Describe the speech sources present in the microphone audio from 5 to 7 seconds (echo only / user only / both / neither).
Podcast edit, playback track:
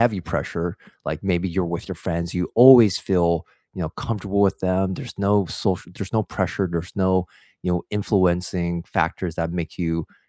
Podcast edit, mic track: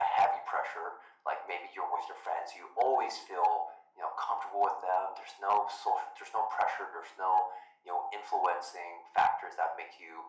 echo only